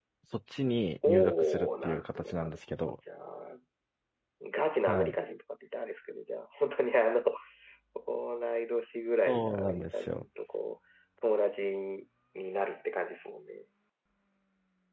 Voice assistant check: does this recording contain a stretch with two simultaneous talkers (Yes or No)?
Yes